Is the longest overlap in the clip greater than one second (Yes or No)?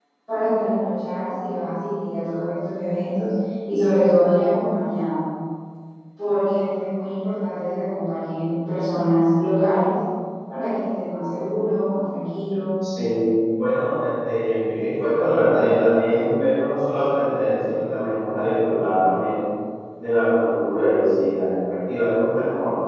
No